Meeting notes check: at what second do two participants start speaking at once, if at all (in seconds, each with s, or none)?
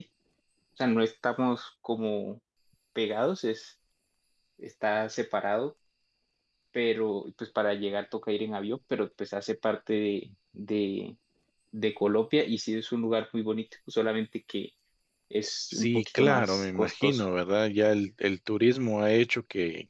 15.7 s